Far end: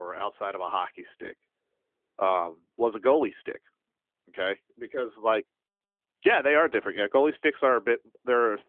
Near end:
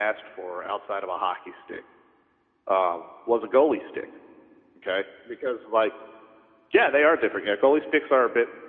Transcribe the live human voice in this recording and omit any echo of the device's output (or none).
none